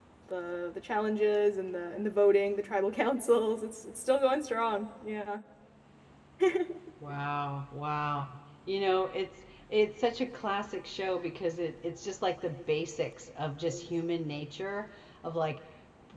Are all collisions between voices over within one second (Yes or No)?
Yes